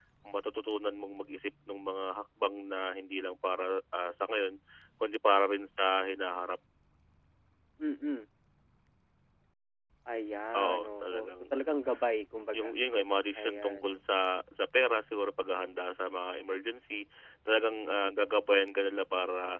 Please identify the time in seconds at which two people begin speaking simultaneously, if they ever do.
10.5 s

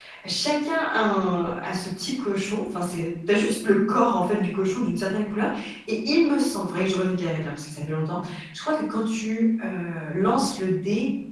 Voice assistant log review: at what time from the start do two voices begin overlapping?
none

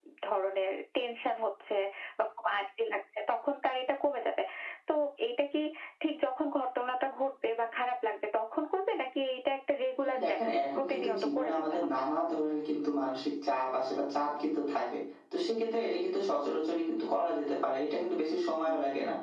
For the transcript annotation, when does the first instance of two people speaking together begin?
10.1 s

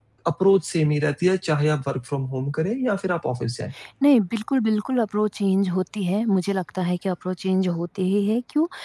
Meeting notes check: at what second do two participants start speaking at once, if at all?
none

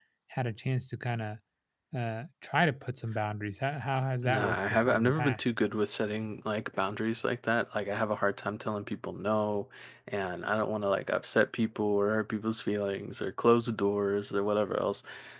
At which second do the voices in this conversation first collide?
4.2 s

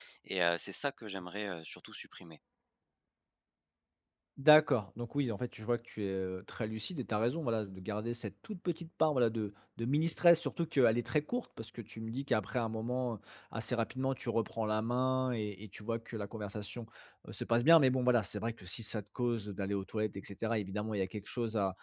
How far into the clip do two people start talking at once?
none

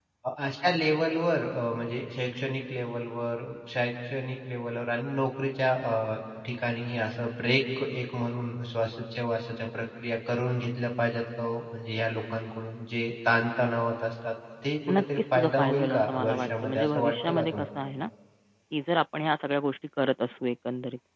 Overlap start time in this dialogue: 14.9 s

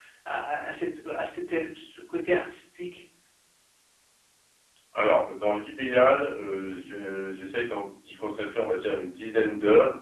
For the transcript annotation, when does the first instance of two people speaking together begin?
none

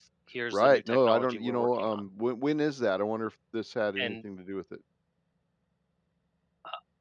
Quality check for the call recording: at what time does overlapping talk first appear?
0.5 s

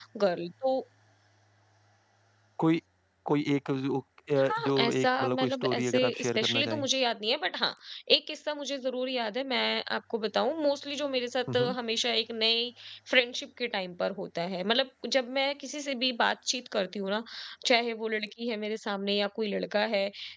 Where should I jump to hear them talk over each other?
4.4 s

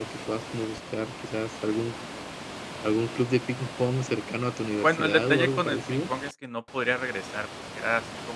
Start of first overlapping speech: 4.8 s

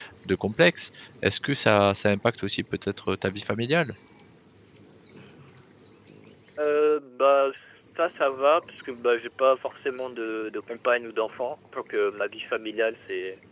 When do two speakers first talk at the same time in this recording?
none

